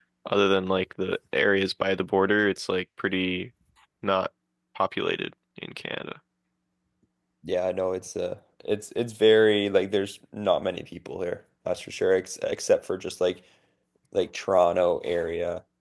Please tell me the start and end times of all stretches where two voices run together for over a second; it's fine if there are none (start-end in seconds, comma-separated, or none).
none